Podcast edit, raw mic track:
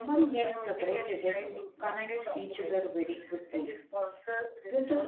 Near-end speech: present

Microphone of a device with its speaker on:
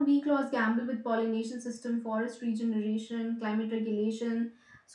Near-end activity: none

